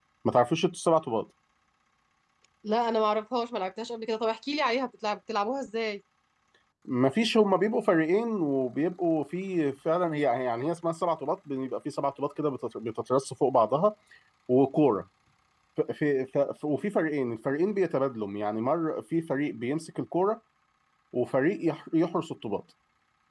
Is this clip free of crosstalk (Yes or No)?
Yes